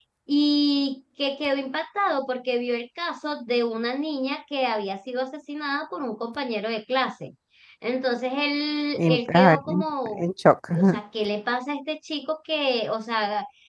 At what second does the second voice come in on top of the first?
9.0 s

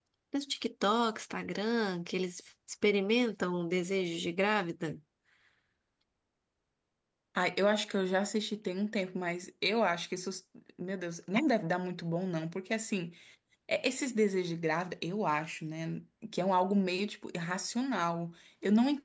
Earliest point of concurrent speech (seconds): none

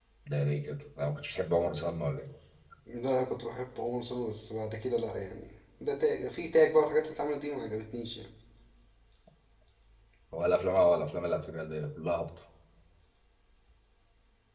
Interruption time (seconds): none

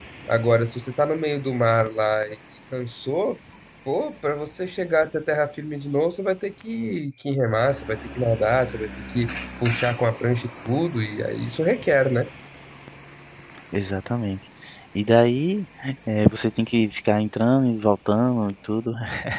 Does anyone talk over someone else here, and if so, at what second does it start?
none

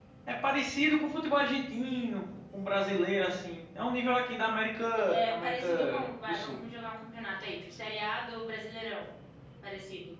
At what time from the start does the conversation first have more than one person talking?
5.0 s

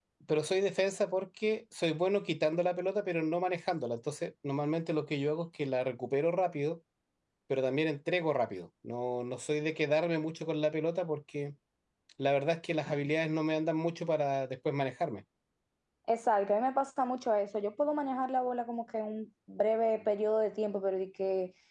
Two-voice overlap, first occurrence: none

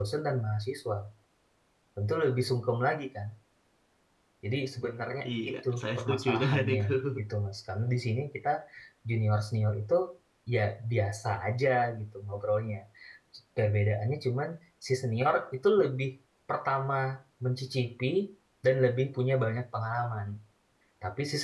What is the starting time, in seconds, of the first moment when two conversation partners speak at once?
5.3 s

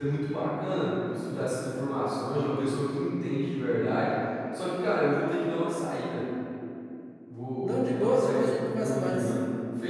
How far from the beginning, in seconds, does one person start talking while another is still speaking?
7.6 s

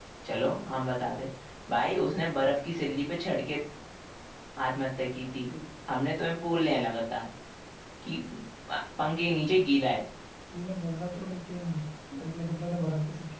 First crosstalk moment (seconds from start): none

